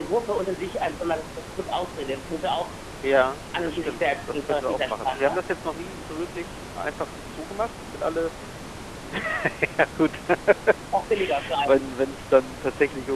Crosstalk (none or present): present